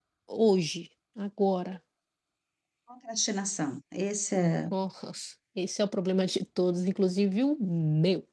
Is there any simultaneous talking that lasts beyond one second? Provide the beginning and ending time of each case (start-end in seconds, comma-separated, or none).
none